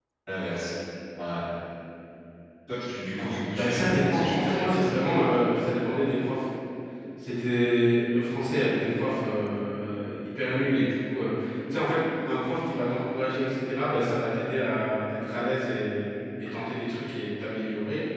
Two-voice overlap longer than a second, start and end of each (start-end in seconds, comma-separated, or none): 3.5-5.5